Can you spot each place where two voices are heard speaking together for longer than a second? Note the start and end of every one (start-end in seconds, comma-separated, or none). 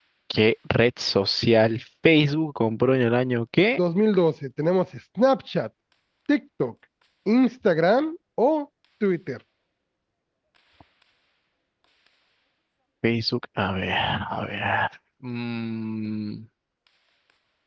none